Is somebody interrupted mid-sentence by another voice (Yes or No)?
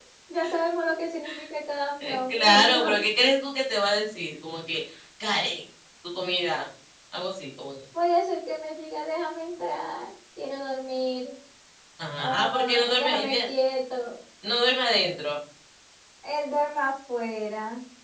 Yes